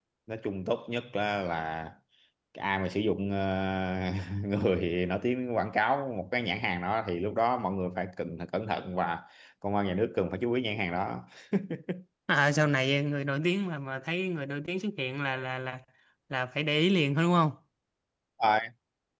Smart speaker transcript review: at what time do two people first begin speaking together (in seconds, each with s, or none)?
none